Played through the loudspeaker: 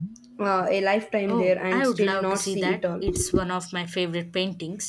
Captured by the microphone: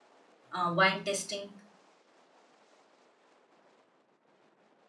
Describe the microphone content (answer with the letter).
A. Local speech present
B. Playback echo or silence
A